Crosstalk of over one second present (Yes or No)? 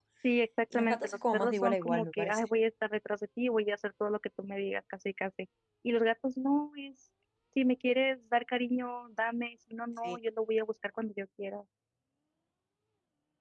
Yes